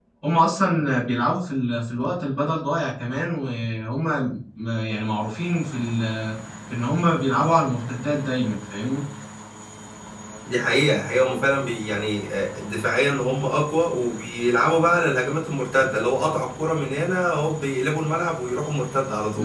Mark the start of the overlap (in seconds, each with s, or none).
none